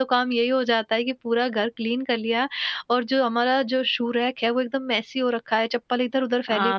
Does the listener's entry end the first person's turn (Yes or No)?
Yes